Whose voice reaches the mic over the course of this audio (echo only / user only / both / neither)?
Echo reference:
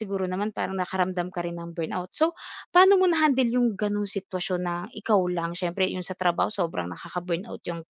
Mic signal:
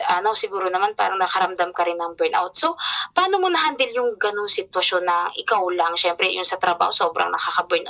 echo only